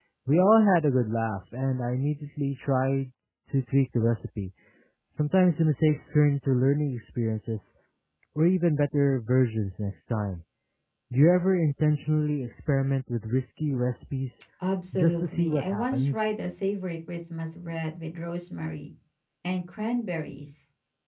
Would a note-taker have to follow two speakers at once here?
Yes, from 14.9 s

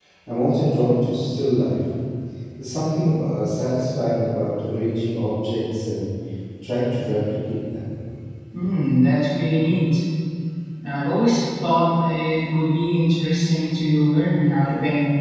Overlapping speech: No

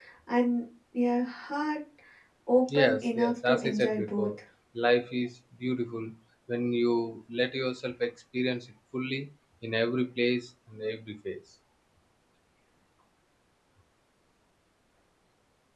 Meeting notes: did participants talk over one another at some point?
Yes, from 2.7 s

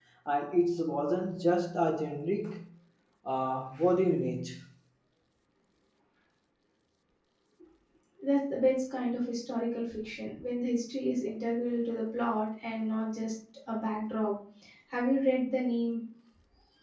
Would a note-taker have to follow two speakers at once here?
No

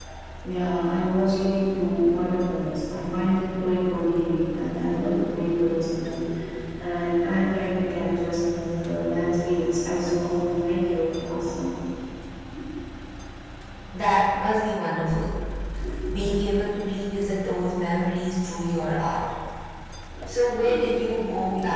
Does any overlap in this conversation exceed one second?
No

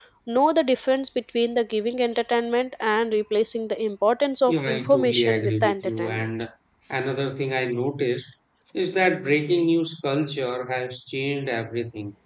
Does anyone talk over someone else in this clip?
Yes, from 4.5 s

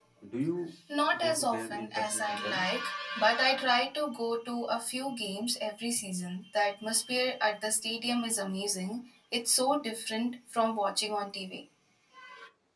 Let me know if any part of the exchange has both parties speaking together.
Yes, from 1.2 s

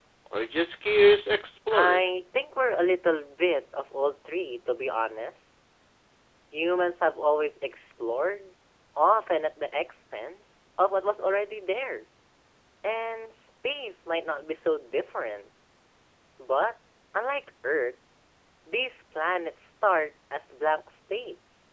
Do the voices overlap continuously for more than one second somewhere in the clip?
No

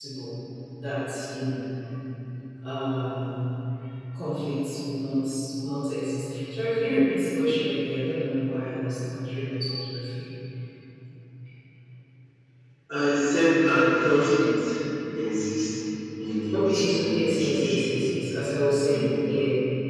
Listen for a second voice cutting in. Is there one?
Yes, from 16.5 s

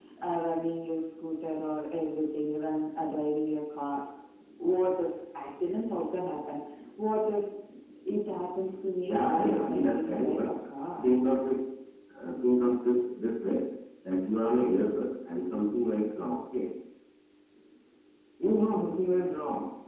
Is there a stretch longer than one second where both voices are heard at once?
Yes, from 9.1 s

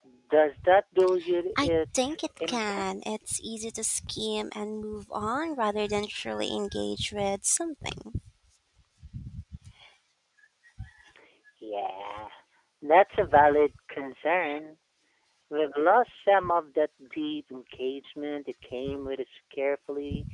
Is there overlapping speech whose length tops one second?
Yes, from 1.6 s

